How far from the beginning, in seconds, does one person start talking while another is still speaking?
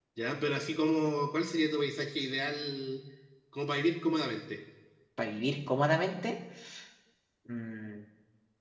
none

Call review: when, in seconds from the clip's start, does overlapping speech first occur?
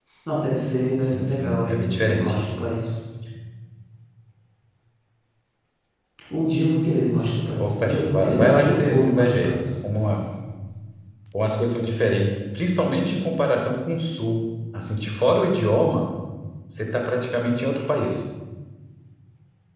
1.0 s

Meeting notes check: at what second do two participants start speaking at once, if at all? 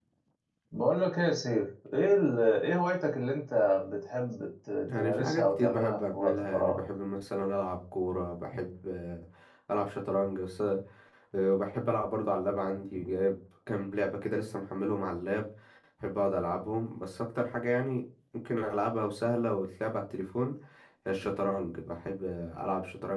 4.9 s

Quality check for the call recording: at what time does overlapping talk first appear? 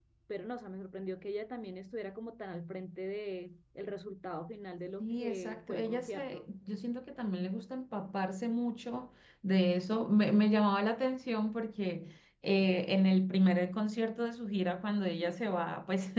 5.0 s

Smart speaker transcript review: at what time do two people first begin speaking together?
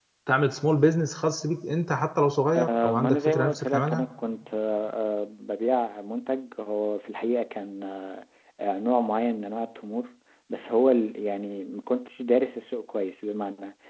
2.5 s

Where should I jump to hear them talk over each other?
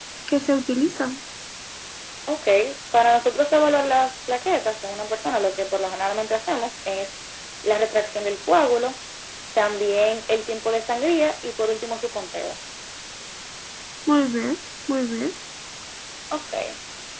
none

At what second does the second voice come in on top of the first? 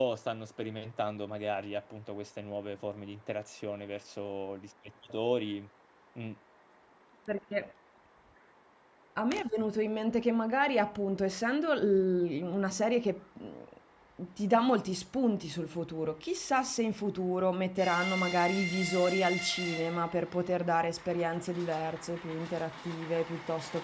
none

